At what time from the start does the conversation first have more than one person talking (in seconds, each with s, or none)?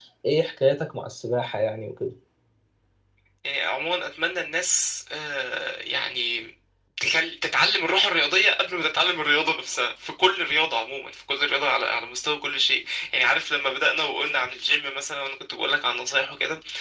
none